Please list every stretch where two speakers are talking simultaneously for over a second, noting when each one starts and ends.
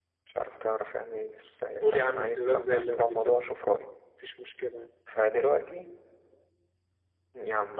1.8-3.4

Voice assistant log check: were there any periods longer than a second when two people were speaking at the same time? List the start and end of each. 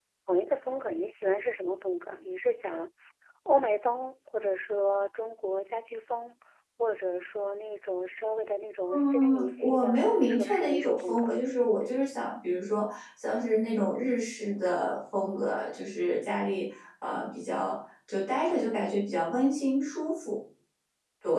8.9-11.3

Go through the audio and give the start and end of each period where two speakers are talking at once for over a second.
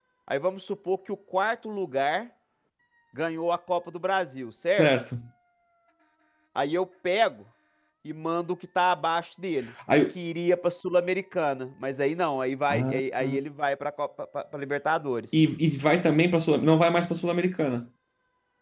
none

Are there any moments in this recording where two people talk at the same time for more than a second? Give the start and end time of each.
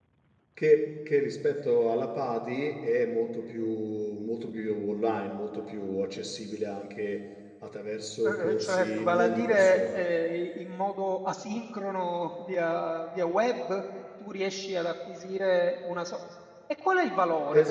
8.2-10.0

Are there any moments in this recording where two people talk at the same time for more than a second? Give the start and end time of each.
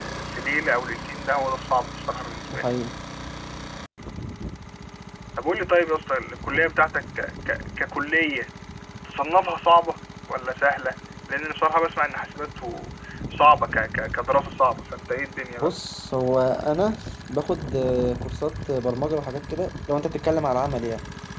none

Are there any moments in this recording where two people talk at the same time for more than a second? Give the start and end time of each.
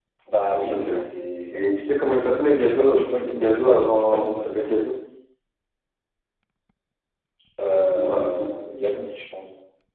2.7-4.7

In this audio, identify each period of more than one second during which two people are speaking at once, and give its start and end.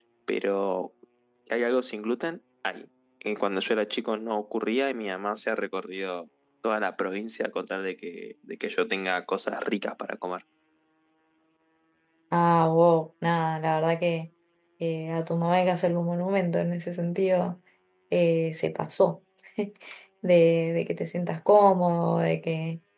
none

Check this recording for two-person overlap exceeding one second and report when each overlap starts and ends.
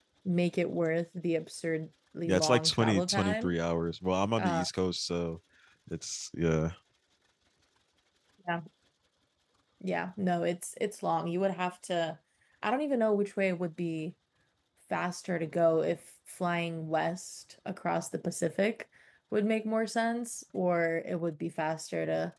2.2-3.5

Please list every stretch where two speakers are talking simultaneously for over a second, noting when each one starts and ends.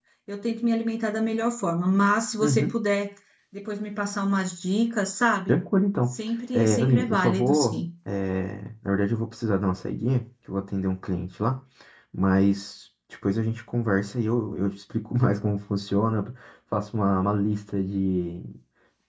6.5-7.8

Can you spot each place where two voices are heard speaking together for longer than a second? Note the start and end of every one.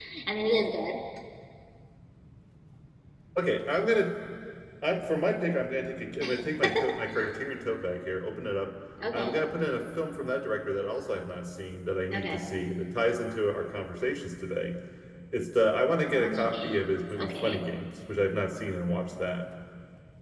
16.2-17.6

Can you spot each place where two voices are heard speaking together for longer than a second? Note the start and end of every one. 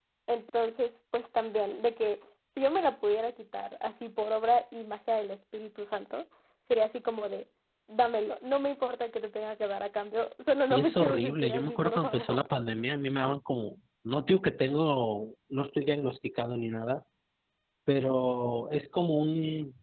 10.7-12.4

